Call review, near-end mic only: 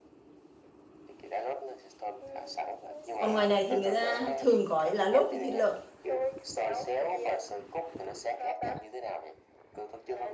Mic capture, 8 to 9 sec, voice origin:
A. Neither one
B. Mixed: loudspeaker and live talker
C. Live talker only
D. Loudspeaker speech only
D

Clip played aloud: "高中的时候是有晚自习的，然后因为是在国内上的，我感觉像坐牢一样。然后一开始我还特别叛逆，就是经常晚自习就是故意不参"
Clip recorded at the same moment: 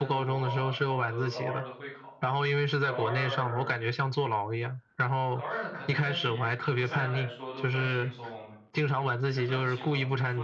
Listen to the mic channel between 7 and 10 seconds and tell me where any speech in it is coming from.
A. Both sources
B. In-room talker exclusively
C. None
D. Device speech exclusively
A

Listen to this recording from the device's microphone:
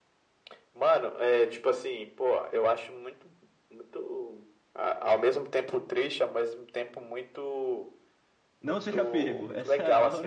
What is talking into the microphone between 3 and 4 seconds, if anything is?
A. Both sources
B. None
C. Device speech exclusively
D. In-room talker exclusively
C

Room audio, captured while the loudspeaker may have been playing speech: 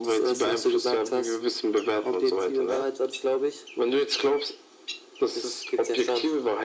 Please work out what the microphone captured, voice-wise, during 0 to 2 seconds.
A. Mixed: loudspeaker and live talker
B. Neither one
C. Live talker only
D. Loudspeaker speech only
D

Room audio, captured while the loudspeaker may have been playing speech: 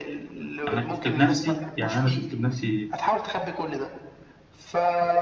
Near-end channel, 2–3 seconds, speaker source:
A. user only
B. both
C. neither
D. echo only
B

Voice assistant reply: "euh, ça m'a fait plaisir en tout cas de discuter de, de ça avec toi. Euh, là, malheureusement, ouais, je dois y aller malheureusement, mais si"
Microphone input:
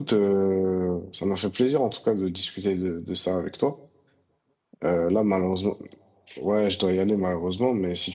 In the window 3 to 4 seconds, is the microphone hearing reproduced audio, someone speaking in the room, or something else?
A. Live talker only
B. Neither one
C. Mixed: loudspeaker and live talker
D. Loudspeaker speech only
D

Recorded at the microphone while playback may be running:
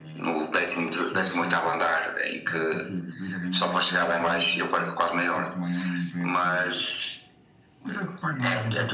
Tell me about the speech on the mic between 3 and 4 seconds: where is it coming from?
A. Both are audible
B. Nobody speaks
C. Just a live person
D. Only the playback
A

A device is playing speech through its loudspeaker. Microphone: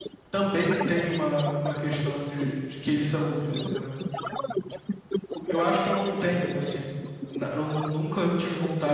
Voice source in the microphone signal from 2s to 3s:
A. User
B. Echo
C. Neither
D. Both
D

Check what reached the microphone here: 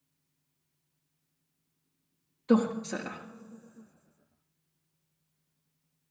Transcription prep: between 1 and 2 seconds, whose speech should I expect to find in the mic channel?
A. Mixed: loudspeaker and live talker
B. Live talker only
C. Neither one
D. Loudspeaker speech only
C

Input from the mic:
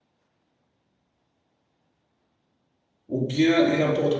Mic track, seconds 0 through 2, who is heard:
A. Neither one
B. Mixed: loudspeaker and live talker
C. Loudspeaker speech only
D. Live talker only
A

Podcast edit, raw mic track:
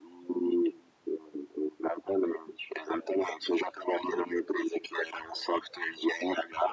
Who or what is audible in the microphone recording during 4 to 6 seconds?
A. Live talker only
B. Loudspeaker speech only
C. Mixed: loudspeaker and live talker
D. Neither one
B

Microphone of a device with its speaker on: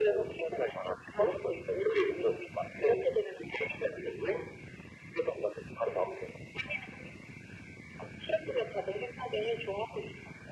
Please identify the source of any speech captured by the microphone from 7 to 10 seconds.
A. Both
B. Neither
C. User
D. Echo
D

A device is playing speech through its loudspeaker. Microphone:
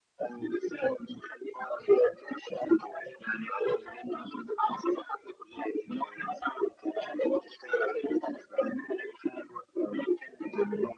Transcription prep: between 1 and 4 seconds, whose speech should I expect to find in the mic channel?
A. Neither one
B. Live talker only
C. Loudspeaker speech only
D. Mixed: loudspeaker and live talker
C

